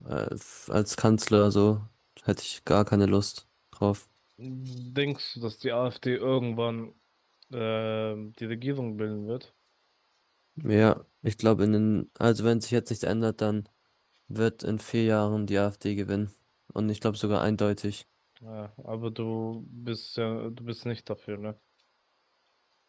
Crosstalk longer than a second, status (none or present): none